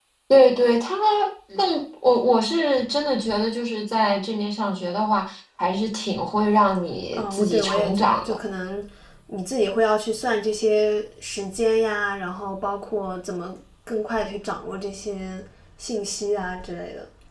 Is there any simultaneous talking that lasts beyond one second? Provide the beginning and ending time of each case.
7.1-8.4

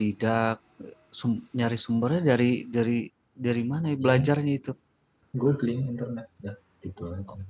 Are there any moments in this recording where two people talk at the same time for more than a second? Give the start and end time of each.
none

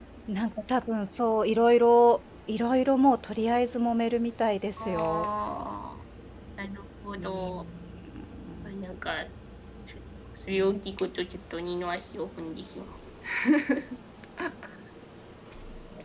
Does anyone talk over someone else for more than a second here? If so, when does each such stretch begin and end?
none

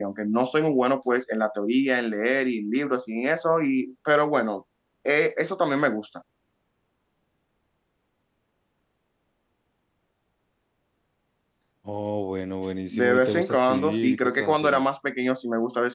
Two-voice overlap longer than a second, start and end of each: 12.9-14.8

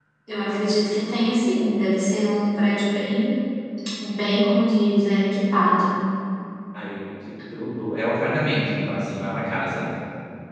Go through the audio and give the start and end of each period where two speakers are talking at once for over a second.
none

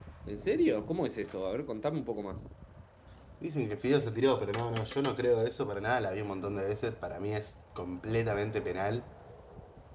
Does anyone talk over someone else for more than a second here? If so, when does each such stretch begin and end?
none

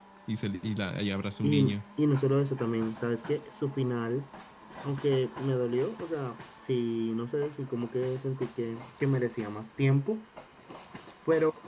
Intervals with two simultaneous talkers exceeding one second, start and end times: none

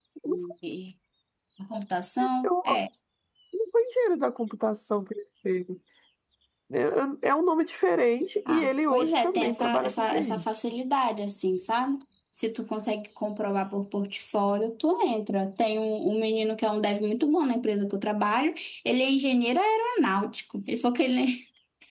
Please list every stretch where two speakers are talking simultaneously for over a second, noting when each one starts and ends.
8.5-10.4

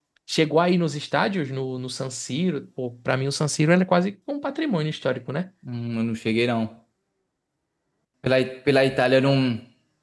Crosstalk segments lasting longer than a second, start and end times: none

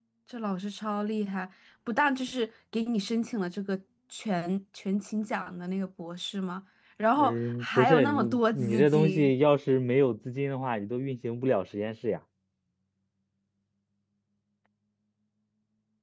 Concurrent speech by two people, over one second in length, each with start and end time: 7.2-9.3

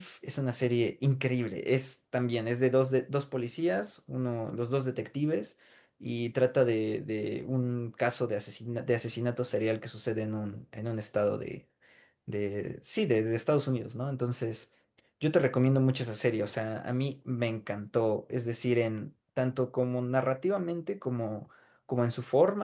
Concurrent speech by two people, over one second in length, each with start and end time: none

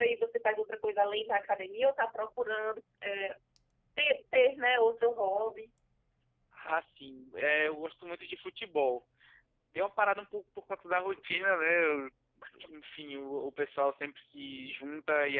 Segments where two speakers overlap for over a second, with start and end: none

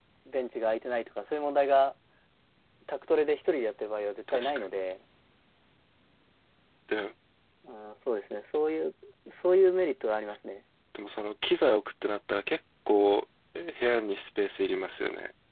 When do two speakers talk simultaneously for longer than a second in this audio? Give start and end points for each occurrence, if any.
none

